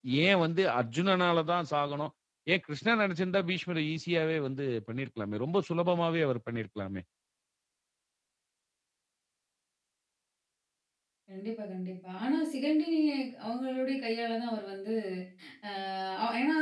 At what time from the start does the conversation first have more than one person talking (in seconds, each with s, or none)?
none